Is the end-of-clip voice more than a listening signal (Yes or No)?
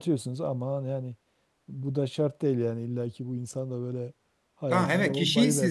Yes